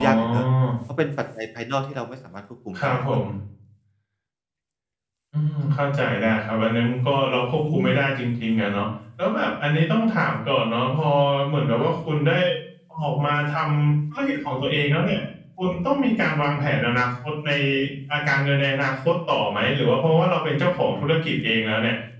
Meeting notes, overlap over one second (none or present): none